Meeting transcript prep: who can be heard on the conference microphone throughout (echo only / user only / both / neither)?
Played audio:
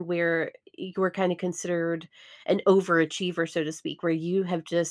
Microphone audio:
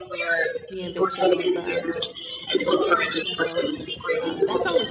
both